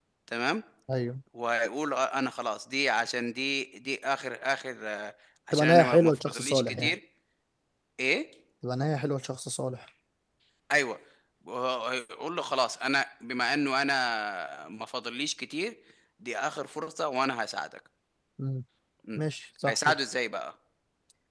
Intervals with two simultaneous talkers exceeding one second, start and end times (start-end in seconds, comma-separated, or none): 5.5-7.0